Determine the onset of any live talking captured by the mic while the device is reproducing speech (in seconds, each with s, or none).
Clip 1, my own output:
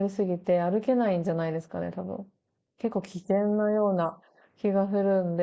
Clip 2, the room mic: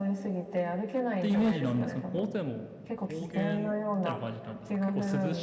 1.2 s